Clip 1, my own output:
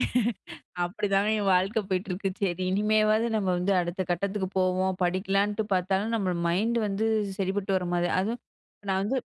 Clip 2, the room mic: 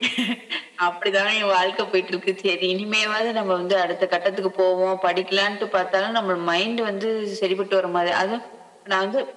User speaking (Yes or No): No